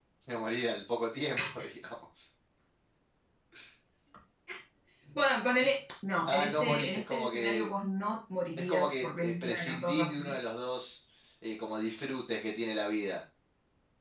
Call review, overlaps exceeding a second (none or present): present